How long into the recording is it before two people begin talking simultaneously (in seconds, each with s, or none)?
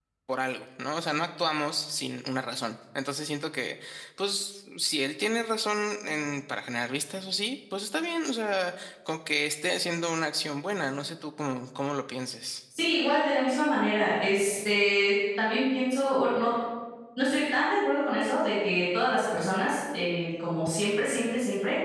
none